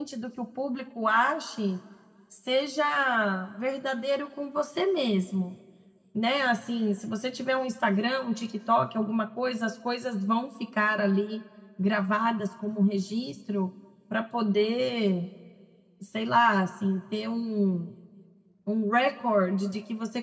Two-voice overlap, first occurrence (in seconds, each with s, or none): none